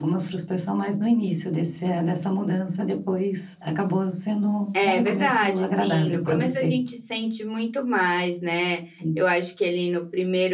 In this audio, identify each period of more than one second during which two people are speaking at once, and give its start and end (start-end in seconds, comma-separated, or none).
4.8-6.8